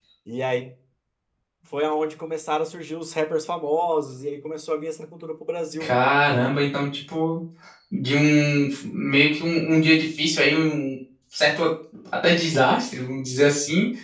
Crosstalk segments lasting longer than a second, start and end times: none

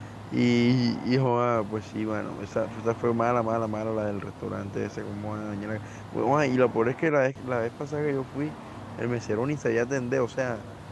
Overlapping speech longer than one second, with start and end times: none

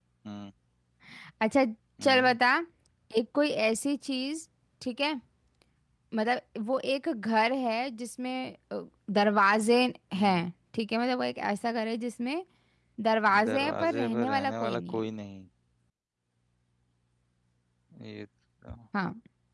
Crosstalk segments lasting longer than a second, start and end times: 13.5-15.0

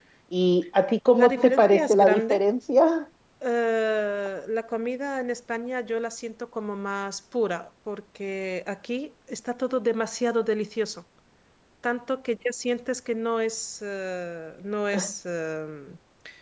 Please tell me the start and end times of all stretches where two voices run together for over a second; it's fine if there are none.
1.2-2.4

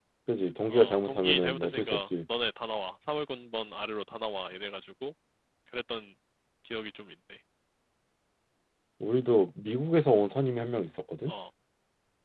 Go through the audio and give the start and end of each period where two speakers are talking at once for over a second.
0.7-2.0

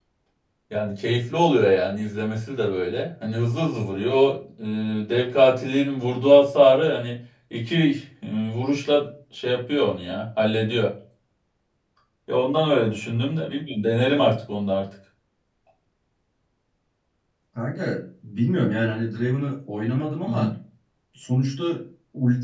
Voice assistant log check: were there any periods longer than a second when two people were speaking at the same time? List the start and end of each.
none

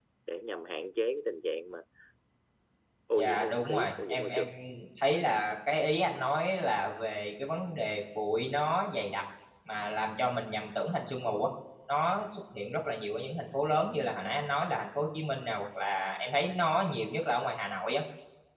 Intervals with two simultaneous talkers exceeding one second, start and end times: 3.2-4.4

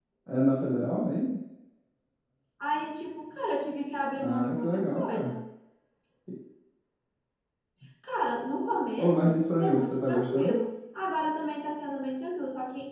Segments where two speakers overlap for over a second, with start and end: 4.1-5.3, 9.0-10.6

